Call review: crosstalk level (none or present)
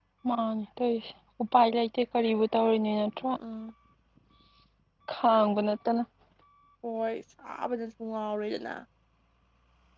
none